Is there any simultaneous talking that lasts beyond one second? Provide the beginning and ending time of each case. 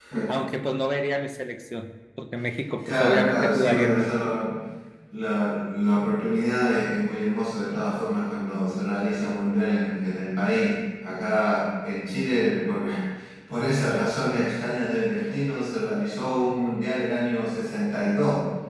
2.8-4.2

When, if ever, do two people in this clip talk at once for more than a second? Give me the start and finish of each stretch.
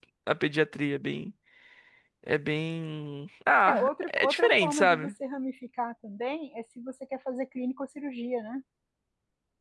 3.7-5.1

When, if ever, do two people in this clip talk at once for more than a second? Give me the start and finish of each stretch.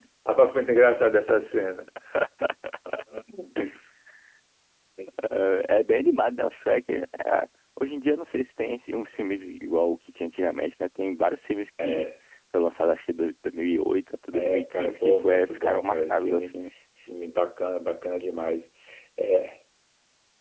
14.3-16.5

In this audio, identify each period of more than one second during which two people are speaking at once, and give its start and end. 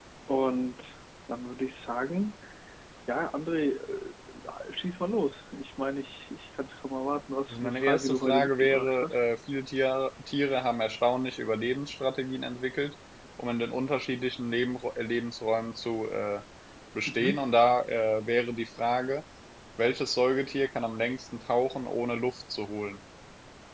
7.5-9.2

